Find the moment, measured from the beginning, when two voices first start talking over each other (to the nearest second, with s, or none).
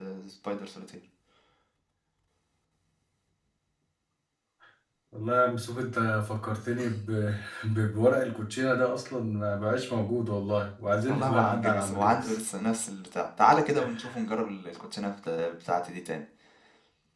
11 s